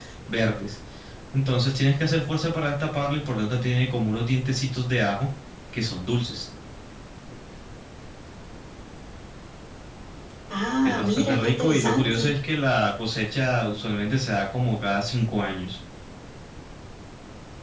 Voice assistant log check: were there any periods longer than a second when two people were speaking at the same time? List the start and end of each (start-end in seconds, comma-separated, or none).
10.8-12.3